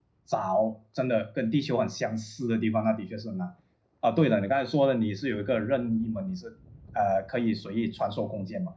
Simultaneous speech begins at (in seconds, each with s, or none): none